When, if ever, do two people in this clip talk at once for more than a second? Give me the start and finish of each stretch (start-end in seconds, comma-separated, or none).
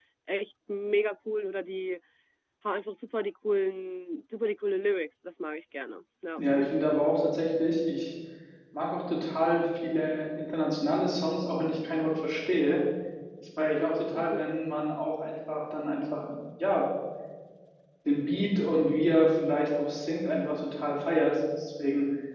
none